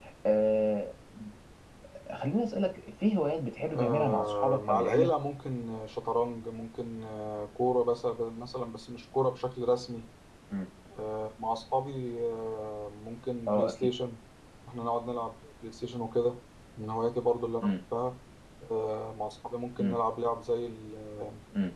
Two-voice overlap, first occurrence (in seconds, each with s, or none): 3.7 s